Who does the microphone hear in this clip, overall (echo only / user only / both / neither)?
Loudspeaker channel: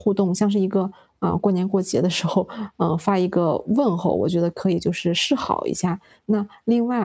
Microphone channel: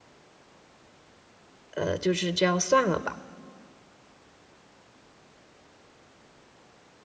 user only